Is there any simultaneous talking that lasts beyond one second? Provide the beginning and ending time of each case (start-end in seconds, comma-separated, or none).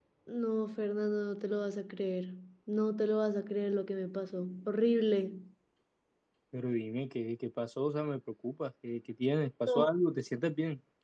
none